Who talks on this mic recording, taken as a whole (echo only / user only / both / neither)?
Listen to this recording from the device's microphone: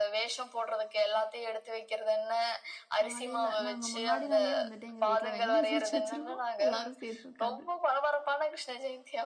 both